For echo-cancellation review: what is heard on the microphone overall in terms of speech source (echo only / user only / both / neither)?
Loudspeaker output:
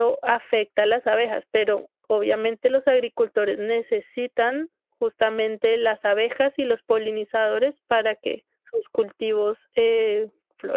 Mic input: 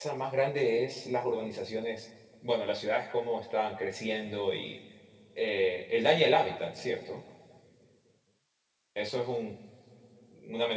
user only